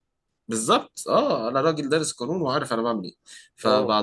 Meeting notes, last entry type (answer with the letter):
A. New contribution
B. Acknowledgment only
B